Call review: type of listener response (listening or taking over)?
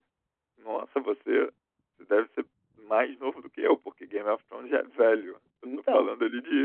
listening